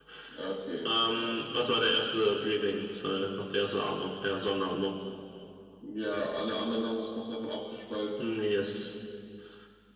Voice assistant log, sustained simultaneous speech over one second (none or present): none